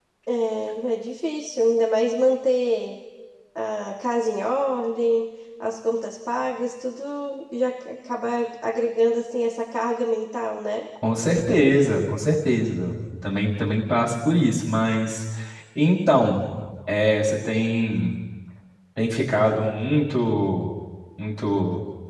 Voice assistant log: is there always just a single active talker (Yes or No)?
Yes